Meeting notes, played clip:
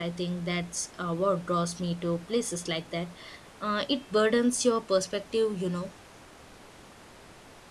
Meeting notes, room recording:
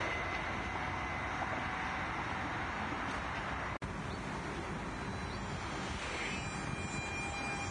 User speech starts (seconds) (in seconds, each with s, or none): none